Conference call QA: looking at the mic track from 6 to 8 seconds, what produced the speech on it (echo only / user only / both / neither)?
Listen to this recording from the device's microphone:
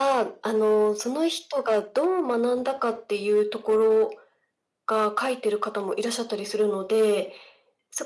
echo only